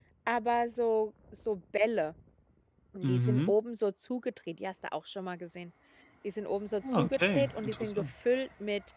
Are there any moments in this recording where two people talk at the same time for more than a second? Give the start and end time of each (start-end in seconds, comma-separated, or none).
6.9-8.1